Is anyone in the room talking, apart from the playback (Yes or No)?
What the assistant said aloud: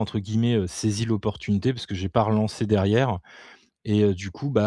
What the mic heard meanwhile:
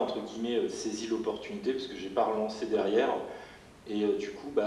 No